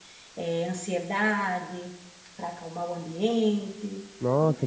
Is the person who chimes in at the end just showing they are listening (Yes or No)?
No